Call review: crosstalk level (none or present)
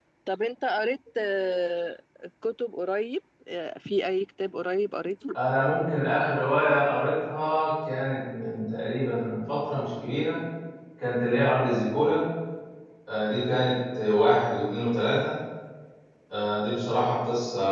none